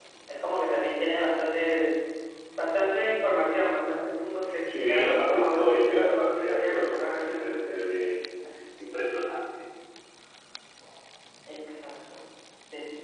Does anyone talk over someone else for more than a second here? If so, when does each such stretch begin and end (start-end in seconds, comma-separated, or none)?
4.6-7.5